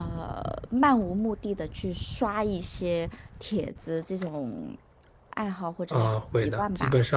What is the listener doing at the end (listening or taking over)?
taking over